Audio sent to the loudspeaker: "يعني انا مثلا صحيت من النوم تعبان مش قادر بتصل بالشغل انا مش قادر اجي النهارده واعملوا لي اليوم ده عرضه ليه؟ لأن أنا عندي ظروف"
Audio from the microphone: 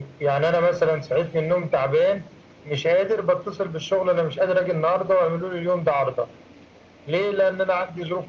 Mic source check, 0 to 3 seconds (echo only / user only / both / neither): echo only